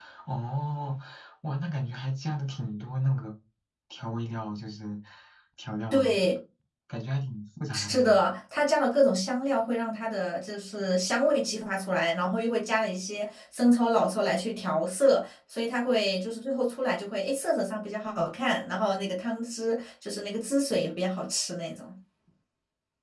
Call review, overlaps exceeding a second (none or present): none